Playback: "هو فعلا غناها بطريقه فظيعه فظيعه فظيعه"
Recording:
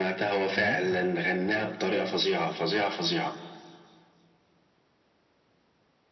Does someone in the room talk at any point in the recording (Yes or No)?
Yes